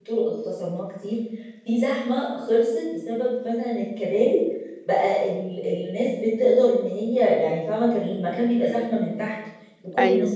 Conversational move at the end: listening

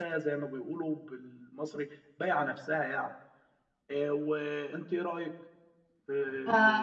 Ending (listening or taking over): taking over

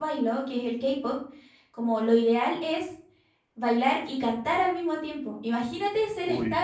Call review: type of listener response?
listening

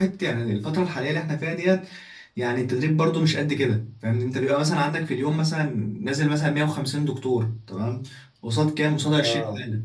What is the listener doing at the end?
listening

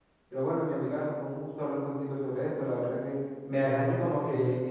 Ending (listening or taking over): listening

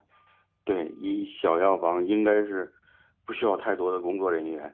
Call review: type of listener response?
taking over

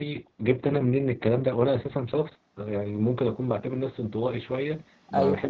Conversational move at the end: listening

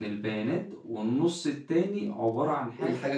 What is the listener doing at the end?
listening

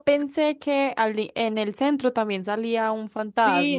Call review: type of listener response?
taking over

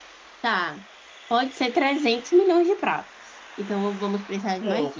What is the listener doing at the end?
taking over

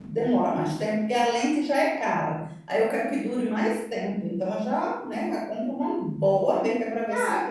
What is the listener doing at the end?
taking over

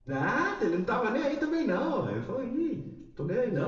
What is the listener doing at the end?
listening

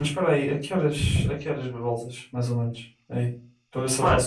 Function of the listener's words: listening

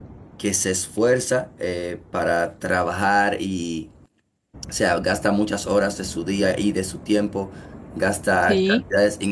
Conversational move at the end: listening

